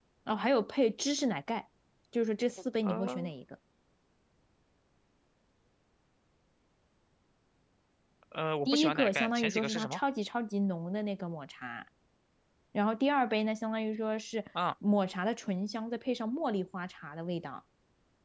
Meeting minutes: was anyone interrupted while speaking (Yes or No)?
Yes